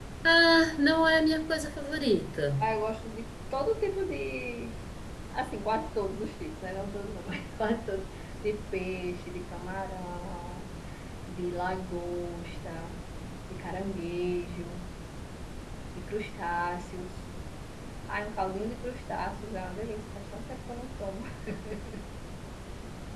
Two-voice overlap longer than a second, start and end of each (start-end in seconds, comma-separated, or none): none